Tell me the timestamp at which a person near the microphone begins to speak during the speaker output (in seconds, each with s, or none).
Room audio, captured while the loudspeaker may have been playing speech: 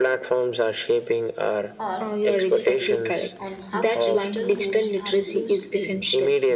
1.8 s